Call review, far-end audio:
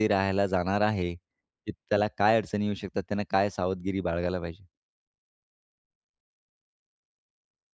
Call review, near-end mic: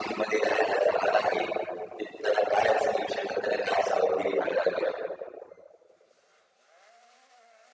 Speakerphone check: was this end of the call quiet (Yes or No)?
Yes